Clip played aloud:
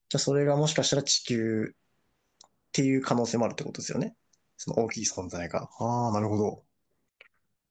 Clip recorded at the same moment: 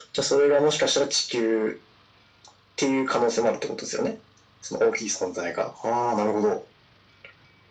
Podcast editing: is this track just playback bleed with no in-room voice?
Yes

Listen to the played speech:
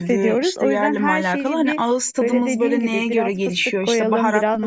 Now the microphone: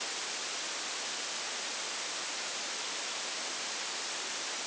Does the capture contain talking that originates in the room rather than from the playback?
No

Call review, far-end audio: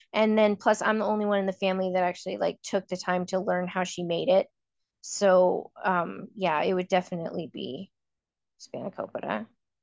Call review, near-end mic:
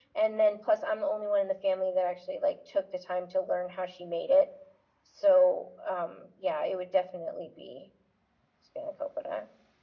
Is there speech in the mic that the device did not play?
No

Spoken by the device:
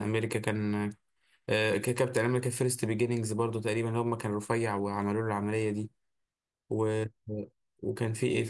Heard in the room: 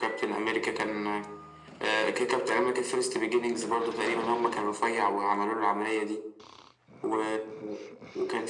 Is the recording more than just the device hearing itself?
No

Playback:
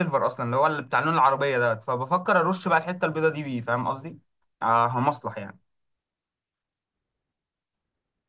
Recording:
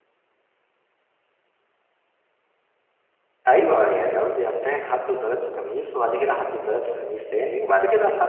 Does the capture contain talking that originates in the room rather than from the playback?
Yes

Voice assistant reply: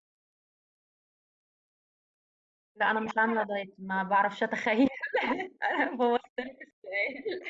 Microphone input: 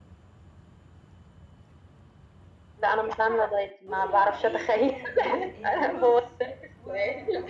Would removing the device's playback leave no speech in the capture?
No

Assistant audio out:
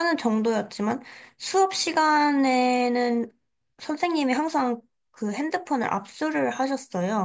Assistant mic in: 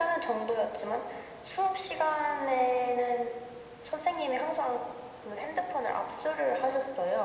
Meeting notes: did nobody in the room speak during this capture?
Yes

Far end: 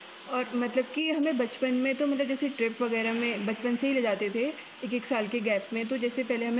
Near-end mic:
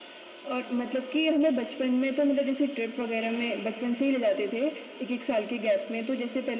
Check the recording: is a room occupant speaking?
No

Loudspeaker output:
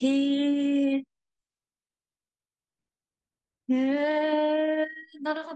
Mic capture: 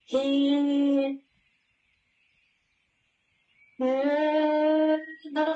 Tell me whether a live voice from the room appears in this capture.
No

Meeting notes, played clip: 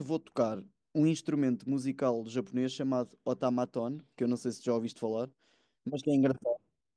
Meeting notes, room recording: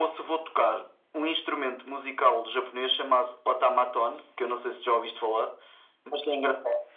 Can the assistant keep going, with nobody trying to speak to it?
Yes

